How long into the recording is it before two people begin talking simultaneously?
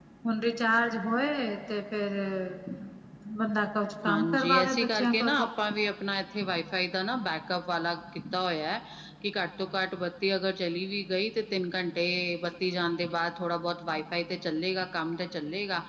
4 s

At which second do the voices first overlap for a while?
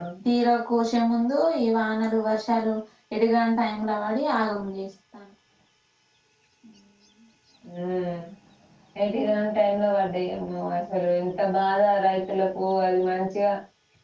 none

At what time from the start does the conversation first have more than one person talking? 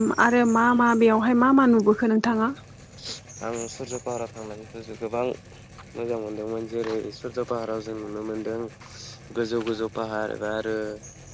none

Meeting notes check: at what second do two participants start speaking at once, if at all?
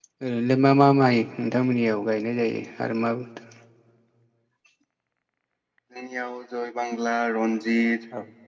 none

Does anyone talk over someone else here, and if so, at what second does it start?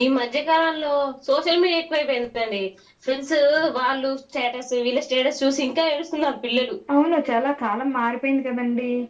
none

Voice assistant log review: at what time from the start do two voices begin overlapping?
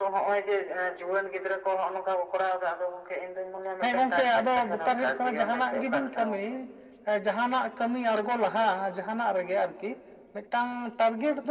4 s

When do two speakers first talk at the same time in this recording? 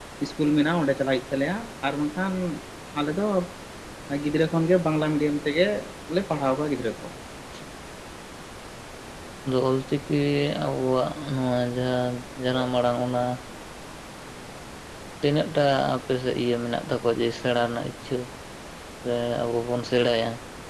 none

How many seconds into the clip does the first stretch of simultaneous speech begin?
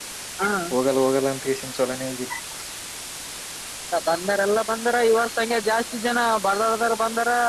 none

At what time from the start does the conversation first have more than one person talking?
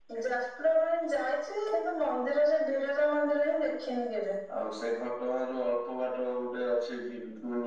none

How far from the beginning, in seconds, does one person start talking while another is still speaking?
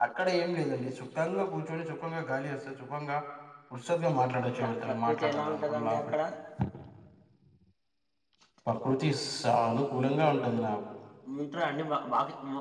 5 s

